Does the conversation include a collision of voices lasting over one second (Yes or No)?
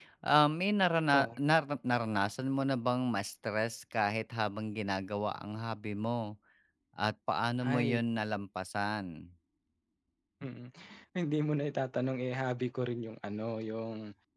No